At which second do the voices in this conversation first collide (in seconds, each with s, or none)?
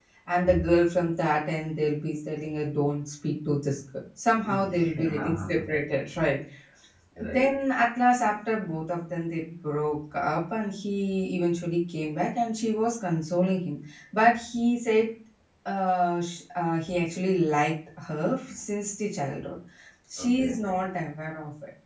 4.4 s